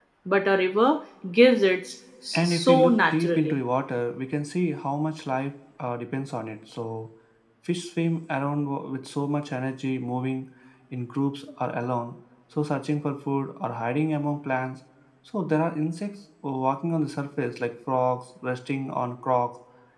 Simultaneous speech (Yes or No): Yes